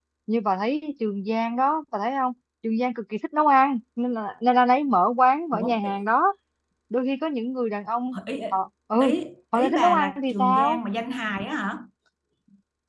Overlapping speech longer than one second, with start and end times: 9.6-10.8

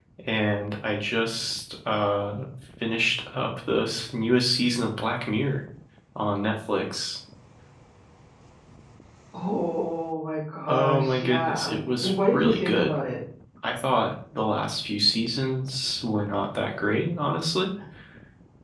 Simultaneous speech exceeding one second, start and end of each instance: 10.7-12.9

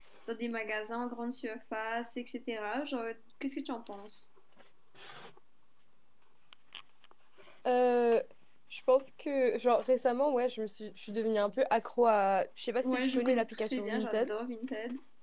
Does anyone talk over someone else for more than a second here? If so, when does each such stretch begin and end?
12.8-14.3

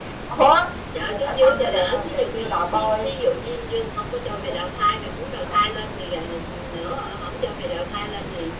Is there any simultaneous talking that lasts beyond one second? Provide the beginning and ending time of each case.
1.1-3.2

